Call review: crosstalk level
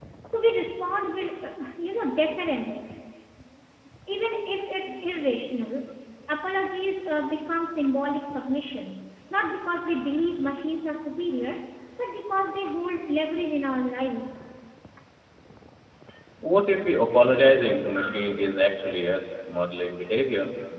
none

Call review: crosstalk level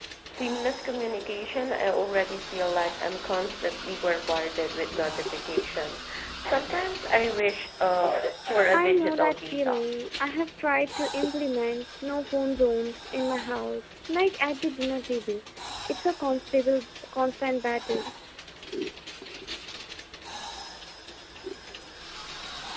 present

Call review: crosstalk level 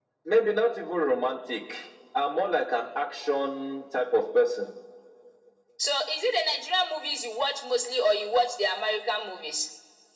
none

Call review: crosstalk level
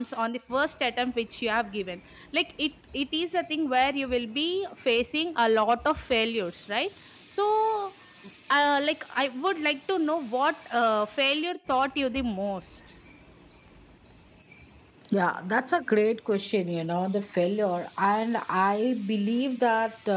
none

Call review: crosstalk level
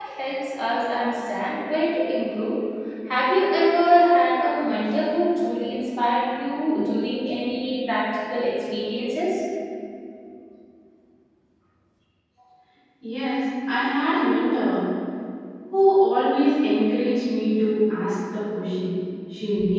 none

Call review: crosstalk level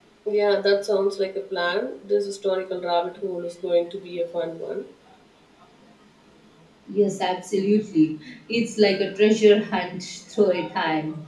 none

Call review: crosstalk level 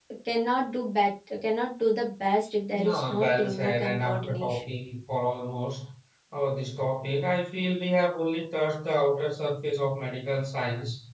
present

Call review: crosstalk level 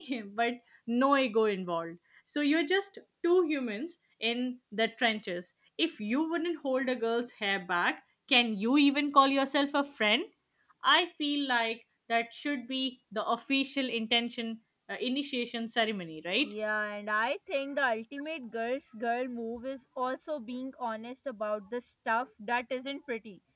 none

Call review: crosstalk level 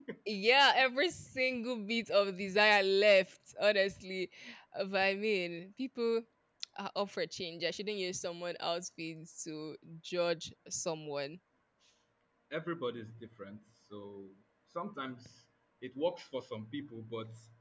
none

